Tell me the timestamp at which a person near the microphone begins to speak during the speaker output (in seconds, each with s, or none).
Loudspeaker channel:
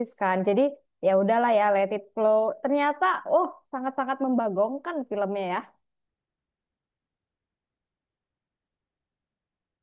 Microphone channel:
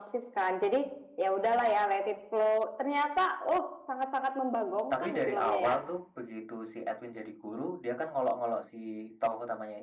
4.9 s